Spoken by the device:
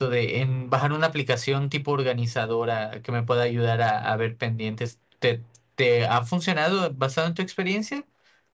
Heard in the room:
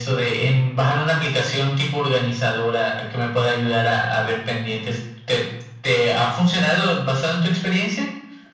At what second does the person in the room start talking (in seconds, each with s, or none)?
none